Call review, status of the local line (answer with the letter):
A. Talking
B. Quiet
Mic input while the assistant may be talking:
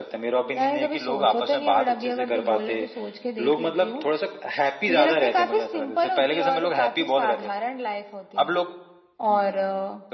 B